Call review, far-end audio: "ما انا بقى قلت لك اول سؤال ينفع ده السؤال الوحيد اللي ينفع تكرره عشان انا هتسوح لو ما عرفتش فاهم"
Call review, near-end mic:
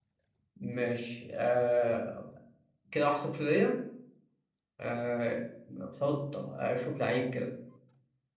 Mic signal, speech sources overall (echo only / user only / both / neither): user only